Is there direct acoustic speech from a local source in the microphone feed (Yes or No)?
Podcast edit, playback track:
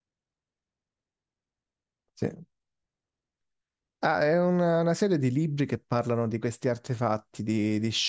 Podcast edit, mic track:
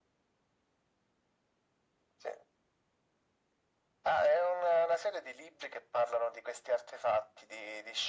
No